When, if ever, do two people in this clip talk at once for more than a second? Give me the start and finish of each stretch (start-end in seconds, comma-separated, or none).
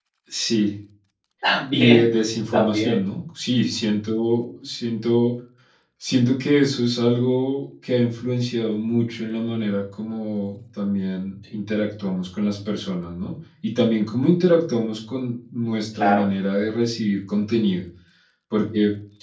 none